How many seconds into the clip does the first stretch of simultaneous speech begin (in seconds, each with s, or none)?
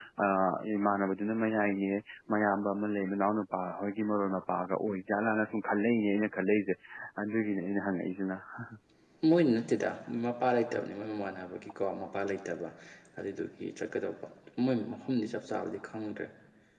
none